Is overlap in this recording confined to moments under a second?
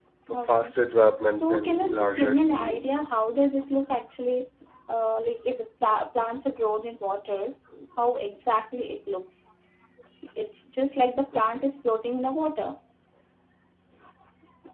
No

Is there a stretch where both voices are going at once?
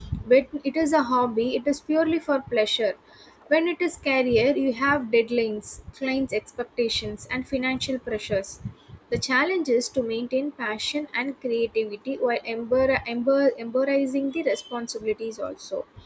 No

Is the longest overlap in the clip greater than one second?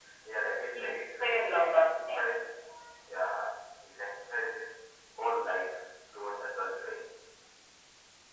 Yes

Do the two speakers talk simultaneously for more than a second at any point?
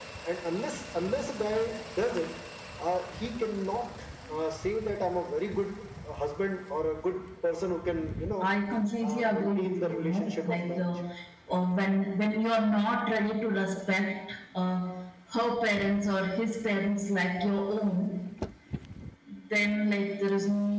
Yes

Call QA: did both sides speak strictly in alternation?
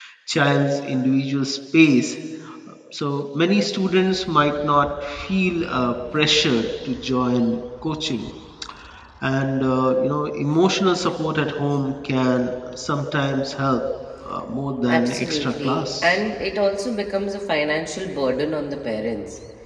No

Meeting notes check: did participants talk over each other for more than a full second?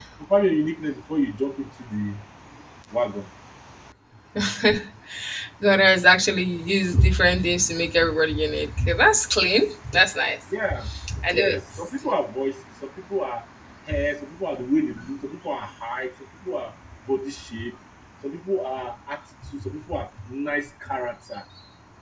No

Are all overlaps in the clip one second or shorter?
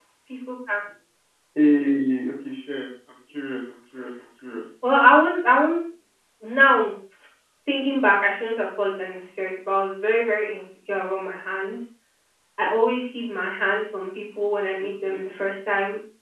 Yes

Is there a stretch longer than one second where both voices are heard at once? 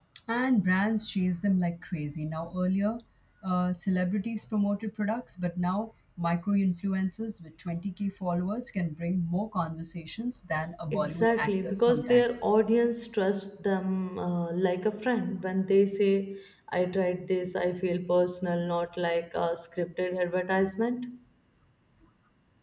Yes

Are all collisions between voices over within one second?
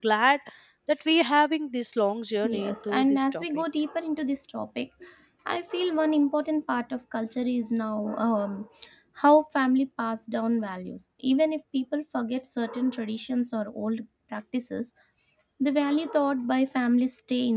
No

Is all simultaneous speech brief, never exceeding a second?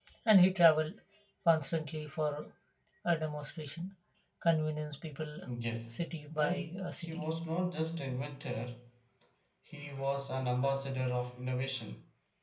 No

